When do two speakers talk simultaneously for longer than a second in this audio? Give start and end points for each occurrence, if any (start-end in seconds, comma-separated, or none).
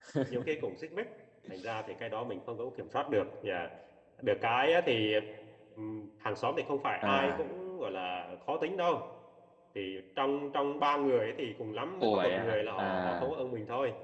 12.0-13.4